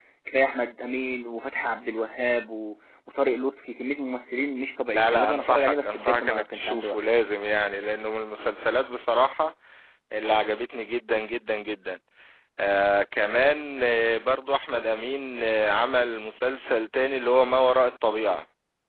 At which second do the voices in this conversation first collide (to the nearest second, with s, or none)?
5 s